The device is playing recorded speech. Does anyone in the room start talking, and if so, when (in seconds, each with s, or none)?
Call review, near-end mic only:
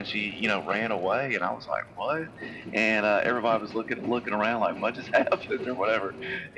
none